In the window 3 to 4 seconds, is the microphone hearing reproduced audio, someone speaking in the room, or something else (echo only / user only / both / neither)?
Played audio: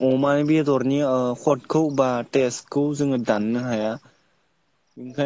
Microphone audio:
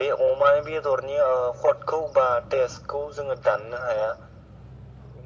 echo only